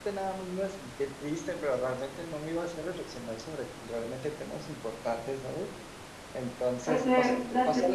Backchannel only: No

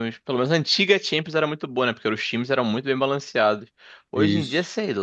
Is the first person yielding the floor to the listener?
No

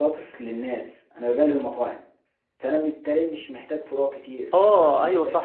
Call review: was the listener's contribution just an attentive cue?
No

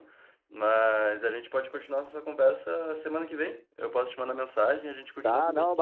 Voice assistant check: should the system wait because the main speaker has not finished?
No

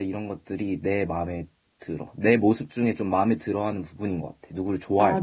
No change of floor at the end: No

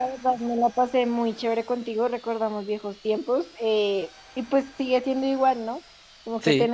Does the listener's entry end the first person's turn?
No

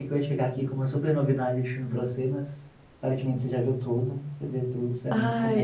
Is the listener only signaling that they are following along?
No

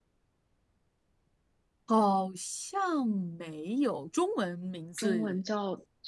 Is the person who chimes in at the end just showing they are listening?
No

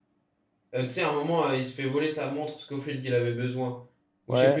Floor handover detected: Yes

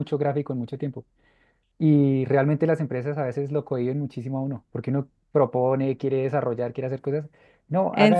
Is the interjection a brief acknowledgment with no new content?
Yes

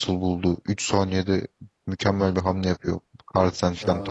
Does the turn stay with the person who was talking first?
No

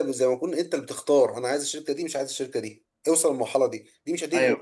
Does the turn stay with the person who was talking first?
Yes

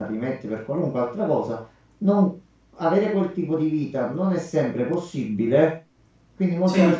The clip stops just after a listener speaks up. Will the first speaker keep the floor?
Yes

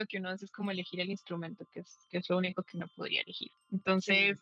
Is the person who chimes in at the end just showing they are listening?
Yes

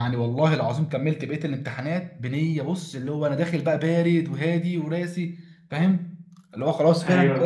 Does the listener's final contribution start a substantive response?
No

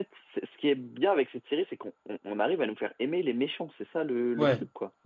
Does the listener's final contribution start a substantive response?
Yes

